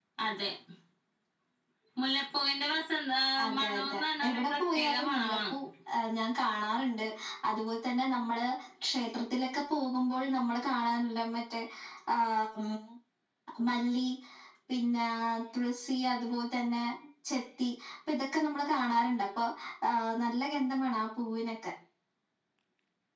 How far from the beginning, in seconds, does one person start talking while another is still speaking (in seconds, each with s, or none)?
3.6 s